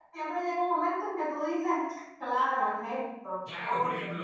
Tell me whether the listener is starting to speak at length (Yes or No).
Yes